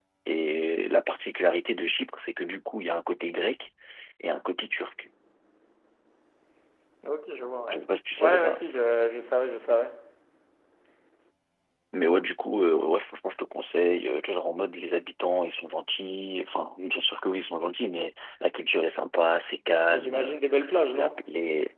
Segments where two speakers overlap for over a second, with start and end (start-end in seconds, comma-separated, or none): none